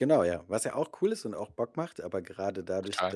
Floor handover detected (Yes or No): No